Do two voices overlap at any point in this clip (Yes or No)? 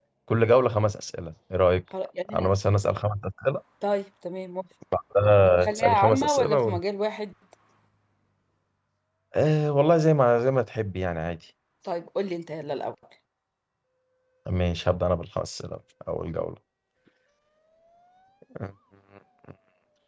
Yes